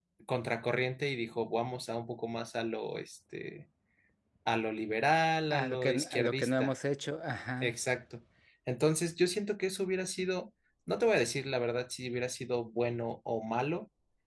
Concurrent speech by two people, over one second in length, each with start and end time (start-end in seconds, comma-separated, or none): 5.5-6.7